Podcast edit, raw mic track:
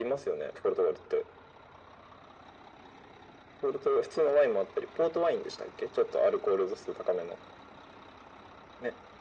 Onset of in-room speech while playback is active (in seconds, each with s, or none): none